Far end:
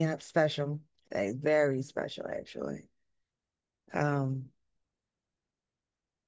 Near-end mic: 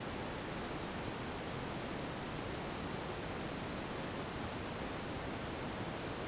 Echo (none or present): none